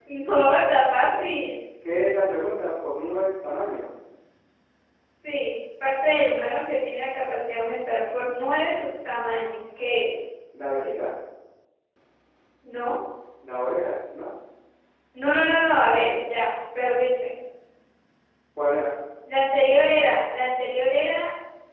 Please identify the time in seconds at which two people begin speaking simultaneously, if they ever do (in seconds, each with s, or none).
none